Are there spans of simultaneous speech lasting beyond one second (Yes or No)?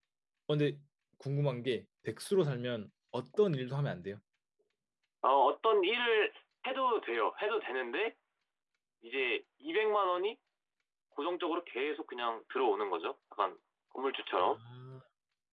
No